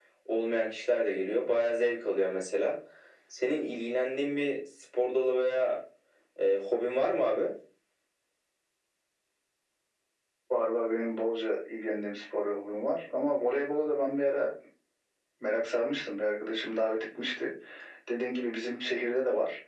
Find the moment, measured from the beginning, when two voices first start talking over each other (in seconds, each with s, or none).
none